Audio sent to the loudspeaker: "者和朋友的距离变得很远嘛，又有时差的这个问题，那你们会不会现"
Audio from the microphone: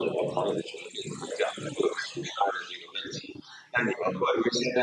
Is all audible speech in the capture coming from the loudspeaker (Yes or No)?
Yes